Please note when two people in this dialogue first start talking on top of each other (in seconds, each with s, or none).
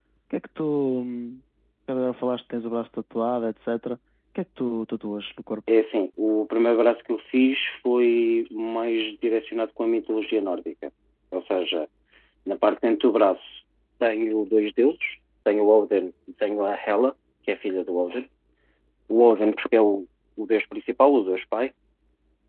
none